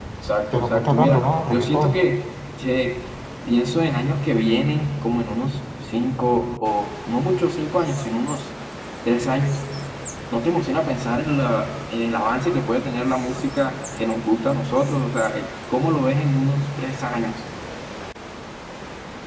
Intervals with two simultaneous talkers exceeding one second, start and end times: 0.5-2.0

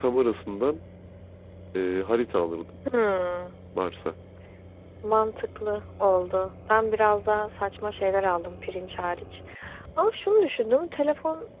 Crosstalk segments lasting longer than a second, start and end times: none

